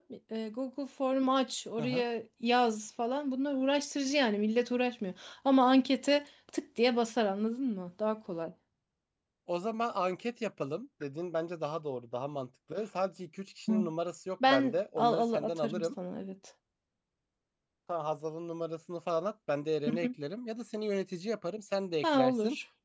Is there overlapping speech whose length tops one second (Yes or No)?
Yes